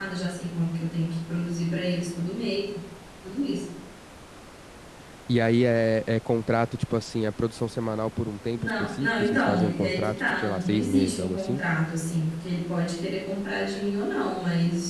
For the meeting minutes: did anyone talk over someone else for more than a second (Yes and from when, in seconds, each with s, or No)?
Yes, from 8.6 s